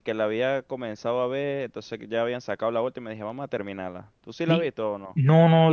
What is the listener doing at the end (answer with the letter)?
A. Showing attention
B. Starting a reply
B